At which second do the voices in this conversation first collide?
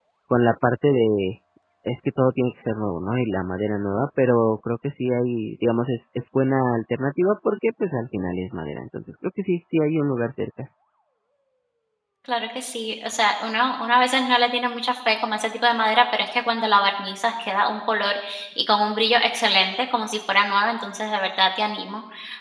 none

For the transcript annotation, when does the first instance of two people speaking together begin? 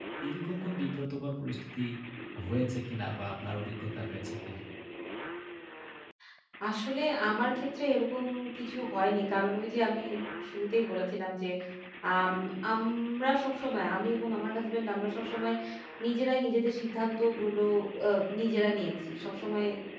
none

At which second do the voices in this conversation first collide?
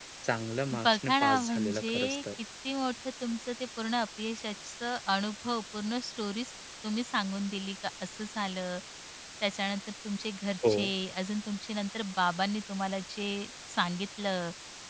0.8 s

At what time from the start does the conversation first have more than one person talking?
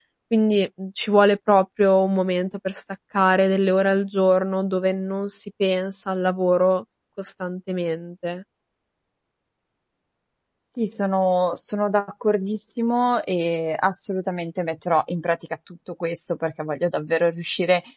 none

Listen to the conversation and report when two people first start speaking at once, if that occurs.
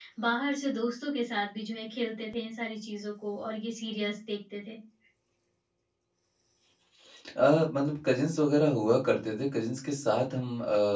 none

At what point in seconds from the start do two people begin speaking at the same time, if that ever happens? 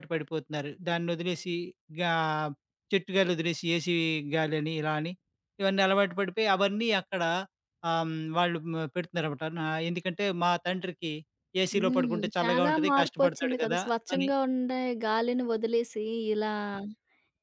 11.8 s

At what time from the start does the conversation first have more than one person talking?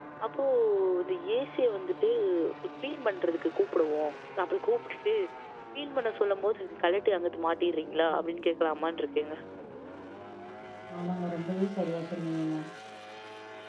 none

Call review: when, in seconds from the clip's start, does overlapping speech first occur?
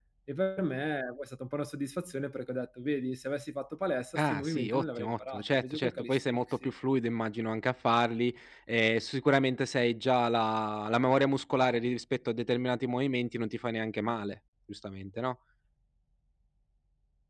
4.2 s

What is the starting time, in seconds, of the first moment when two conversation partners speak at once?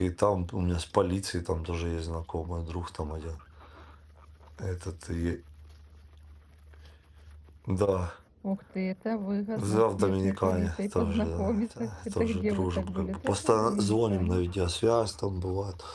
9.6 s

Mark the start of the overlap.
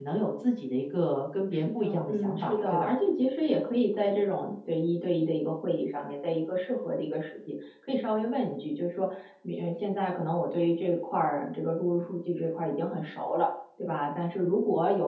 1.5 s

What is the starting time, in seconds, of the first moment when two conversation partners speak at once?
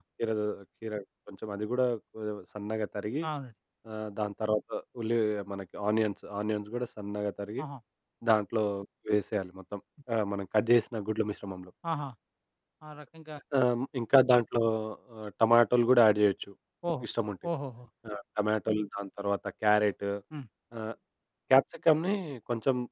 none

